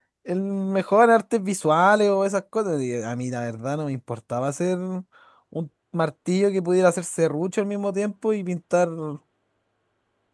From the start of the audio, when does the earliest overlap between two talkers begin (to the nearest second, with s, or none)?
none